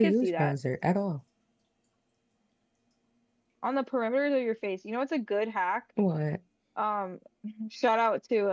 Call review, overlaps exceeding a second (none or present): none